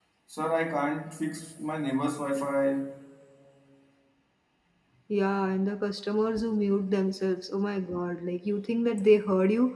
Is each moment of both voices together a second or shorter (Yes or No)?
Yes